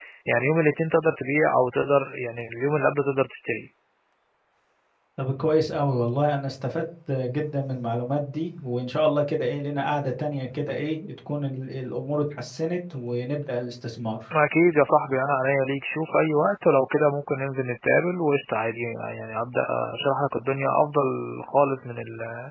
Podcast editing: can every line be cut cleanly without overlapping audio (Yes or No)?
Yes